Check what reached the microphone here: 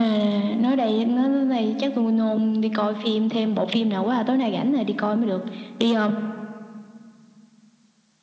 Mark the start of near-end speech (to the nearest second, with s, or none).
none